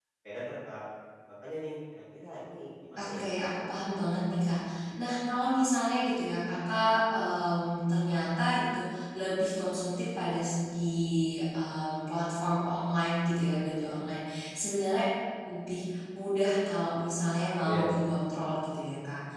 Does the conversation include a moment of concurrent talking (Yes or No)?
Yes